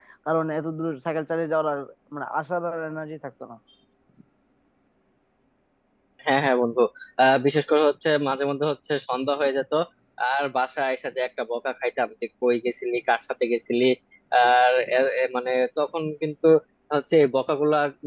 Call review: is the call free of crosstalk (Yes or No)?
Yes